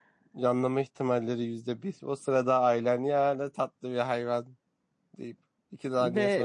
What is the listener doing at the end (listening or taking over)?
taking over